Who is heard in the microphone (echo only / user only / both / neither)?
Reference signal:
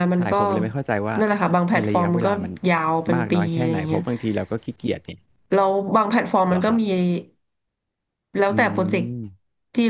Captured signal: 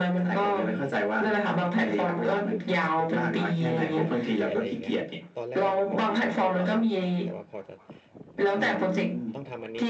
both